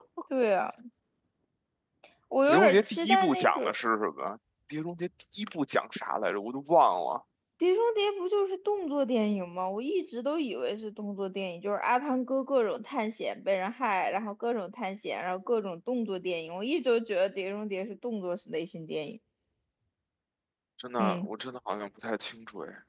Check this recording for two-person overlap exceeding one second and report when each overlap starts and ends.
2.5-3.7

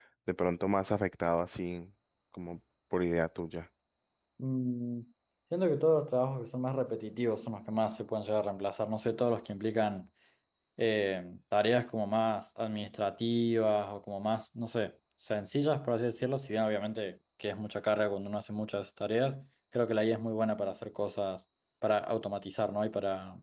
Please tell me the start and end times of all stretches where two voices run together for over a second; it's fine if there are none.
none

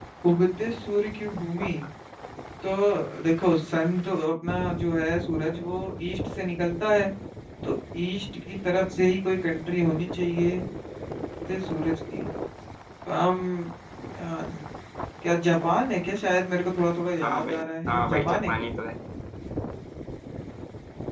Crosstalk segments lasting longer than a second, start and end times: 17.2-18.5

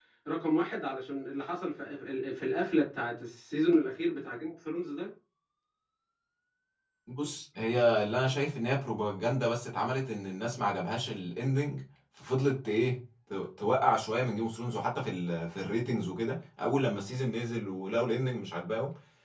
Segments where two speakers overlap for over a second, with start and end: none

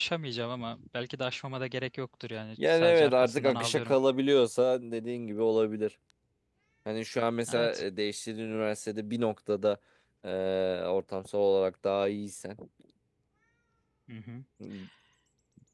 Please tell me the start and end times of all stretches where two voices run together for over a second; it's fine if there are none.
2.7-3.9

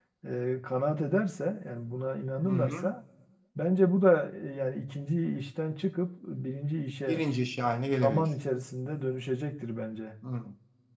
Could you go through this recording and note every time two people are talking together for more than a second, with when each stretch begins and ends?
none

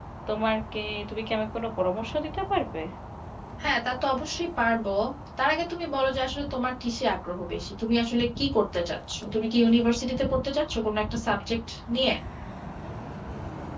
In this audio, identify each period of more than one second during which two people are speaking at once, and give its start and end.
none

